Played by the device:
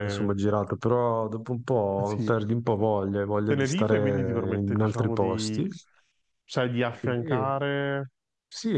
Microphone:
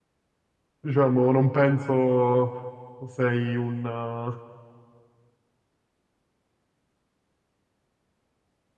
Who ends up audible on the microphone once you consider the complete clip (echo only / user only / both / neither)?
user only